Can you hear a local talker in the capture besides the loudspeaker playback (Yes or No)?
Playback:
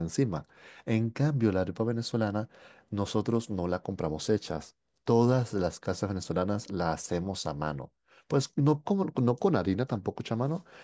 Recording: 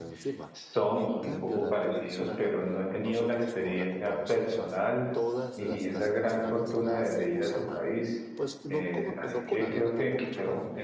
Yes